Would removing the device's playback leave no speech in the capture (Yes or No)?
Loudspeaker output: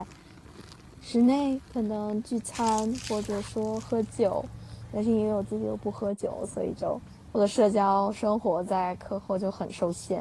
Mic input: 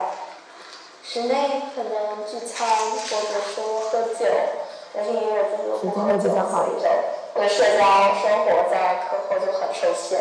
No